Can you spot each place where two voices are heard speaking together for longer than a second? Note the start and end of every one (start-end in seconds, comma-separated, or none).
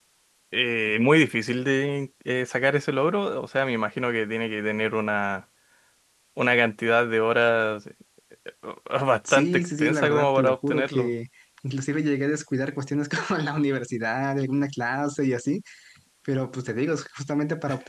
9.3-11.1